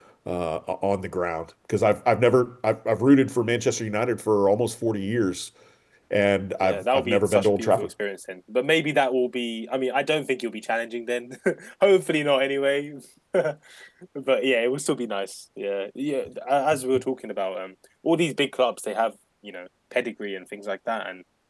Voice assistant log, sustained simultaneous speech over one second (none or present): present